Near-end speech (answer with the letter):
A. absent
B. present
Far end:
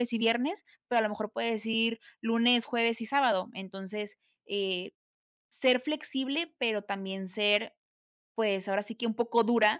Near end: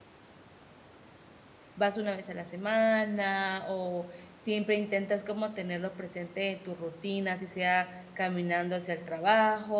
B